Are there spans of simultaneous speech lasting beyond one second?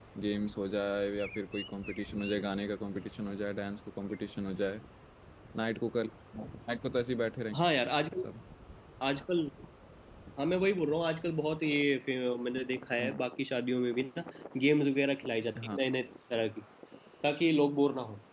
No

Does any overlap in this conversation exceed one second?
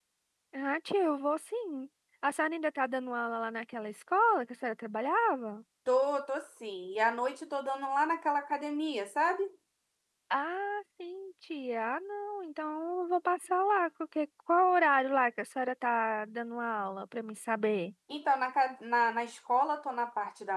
No

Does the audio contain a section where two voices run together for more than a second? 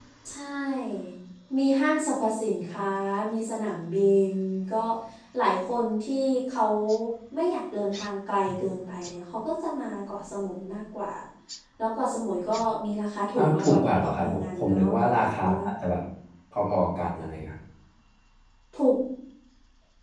Yes, from 13.4 s

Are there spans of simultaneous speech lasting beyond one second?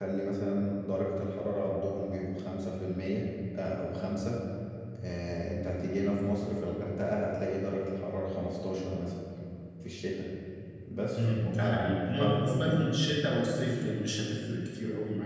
Yes, from 11.1 s

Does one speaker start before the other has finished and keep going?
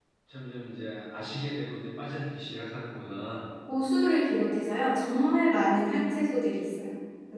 No

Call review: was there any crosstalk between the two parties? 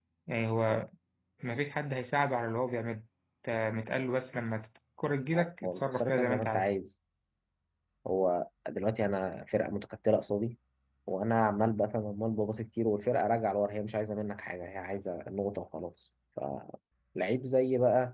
Yes, from 5.3 s

